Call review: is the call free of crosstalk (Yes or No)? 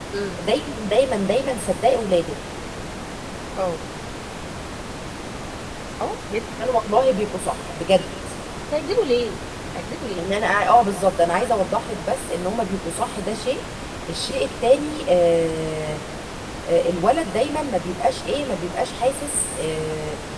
Yes